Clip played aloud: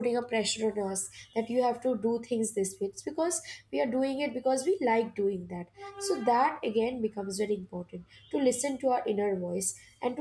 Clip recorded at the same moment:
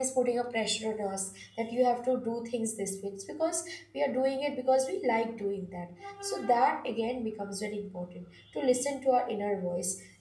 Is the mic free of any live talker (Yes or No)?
Yes